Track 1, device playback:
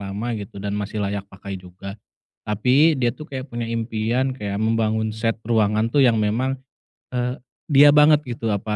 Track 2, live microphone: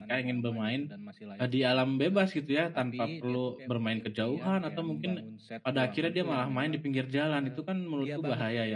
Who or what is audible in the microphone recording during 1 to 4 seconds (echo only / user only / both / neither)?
both